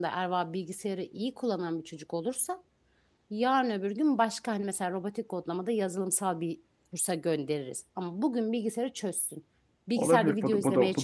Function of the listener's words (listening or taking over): taking over